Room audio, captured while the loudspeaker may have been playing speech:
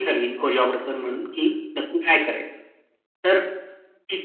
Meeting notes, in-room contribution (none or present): none